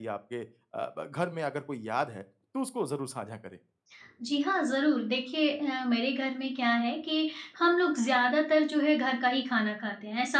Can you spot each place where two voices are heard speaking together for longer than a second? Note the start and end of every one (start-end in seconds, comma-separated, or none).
none